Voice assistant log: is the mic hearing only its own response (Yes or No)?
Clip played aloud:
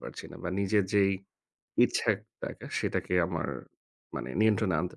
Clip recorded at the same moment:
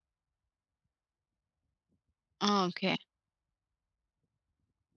No